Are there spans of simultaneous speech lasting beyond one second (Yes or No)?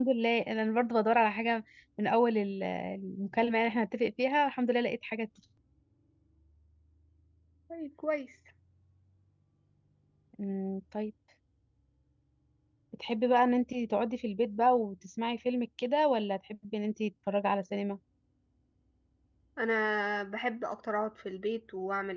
No